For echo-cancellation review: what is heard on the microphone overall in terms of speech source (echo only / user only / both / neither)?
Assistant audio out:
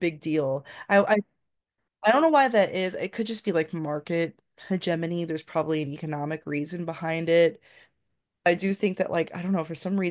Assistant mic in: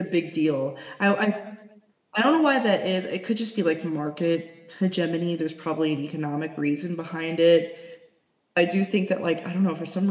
echo only